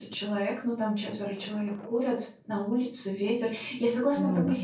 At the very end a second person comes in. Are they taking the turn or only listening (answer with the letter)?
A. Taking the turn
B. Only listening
B